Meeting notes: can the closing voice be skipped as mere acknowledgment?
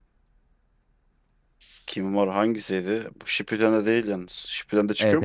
No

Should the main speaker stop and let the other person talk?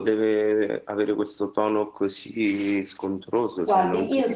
Yes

